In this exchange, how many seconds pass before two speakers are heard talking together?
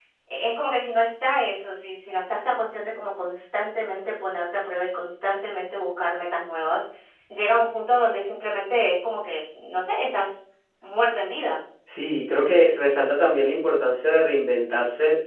none

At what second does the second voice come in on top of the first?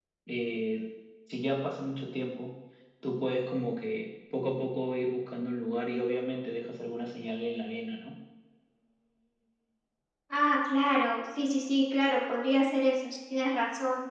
none

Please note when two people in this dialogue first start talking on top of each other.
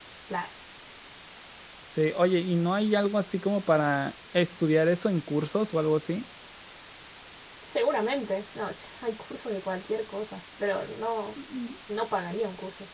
none

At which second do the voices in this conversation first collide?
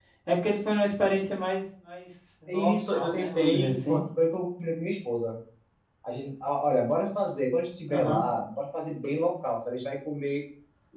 2.5 s

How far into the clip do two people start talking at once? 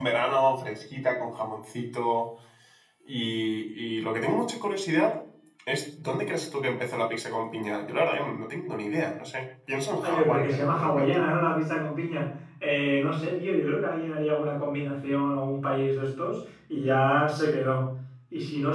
10.0 s

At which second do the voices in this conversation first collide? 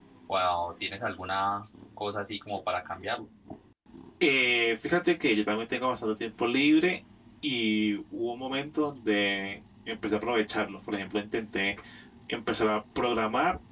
none

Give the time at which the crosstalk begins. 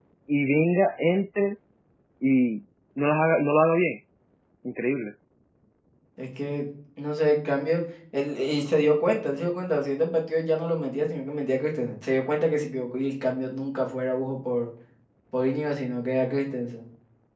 none

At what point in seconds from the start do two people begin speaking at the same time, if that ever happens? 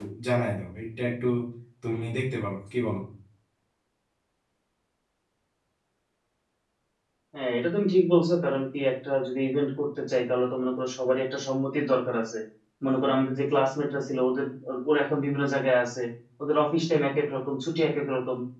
none

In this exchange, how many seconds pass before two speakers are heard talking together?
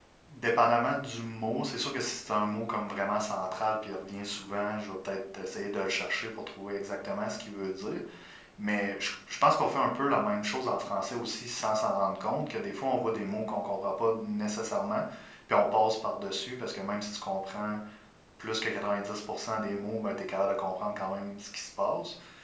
none

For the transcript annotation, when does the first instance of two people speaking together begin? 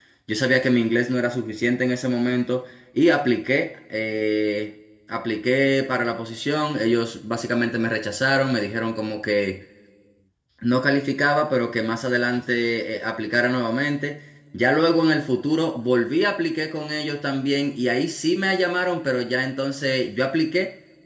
none

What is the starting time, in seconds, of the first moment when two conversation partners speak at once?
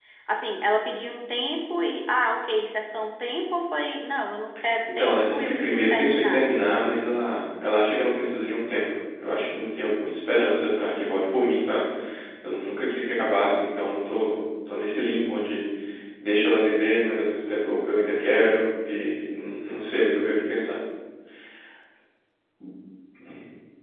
4.9 s

